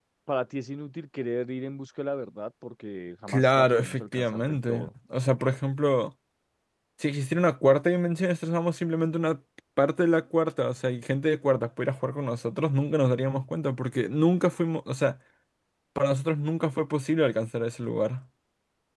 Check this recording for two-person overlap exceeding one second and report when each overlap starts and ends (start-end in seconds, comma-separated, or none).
3.3-4.9